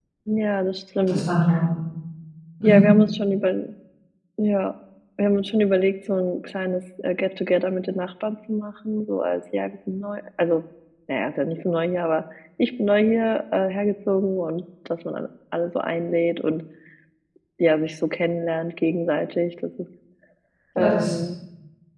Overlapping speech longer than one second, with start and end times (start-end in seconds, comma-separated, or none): none